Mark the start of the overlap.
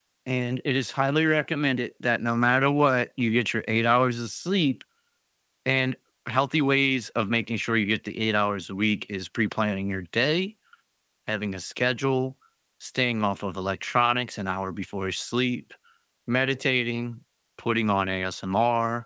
none

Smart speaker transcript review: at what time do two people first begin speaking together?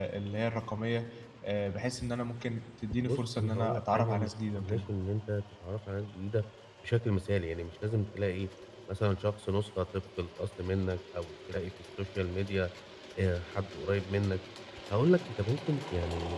3 s

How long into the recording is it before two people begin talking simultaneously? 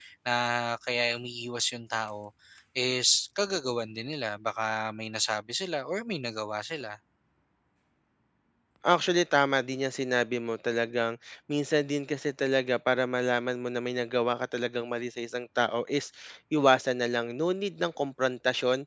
none

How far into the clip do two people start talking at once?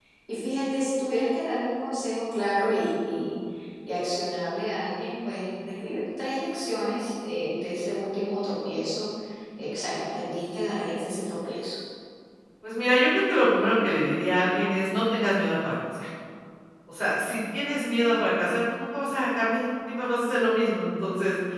none

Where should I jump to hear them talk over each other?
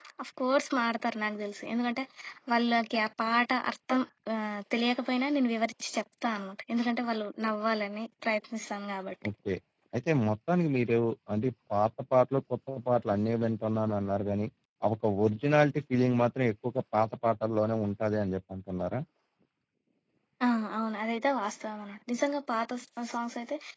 none

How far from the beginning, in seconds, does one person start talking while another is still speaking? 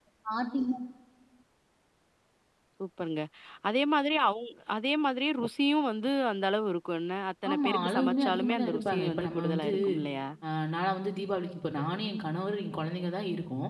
7 s

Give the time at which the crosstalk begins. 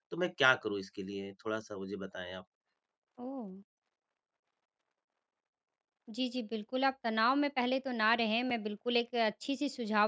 none

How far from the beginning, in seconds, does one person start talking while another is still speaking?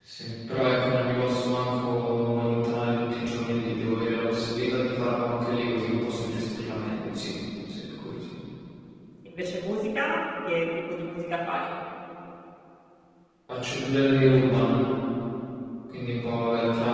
none

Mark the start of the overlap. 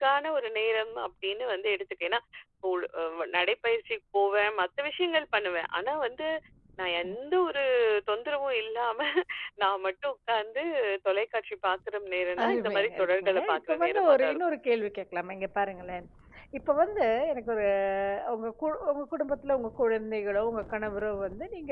12 s

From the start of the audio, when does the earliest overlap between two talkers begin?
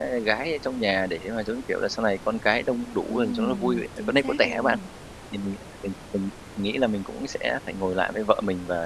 3 s

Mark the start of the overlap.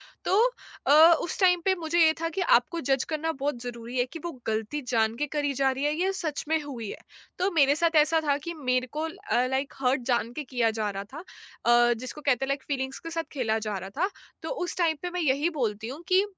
none

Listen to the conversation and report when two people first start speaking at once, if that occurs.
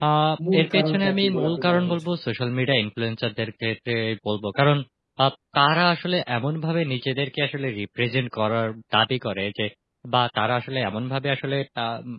1 s

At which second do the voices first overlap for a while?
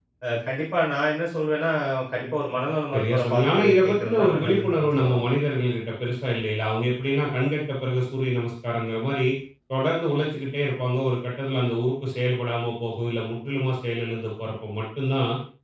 3 s

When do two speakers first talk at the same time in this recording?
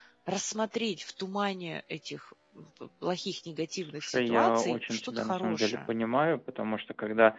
4 s

